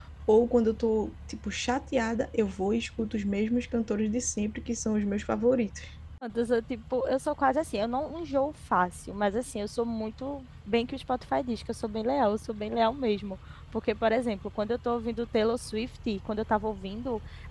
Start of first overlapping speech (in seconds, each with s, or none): none